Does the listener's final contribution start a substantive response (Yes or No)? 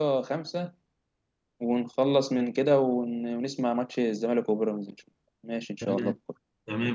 Yes